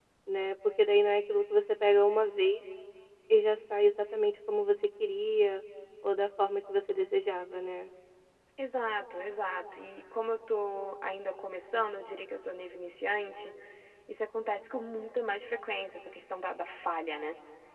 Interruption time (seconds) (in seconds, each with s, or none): none